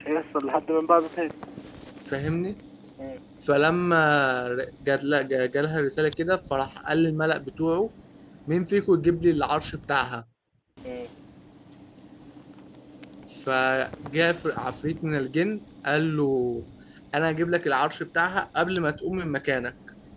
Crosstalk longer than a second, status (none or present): none